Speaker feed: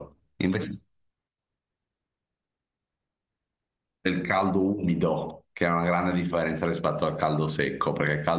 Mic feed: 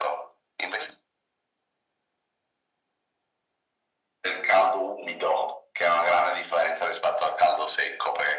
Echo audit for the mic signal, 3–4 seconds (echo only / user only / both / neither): neither